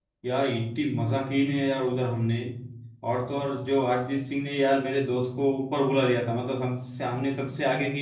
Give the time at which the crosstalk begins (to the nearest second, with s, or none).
none